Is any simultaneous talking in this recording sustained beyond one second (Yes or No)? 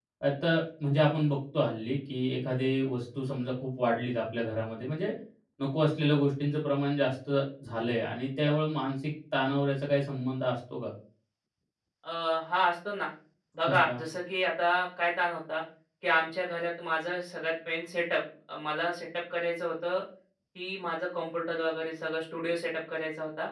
No